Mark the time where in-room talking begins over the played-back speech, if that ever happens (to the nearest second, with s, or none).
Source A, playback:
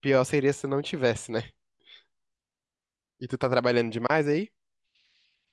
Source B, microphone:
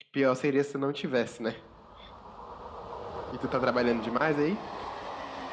none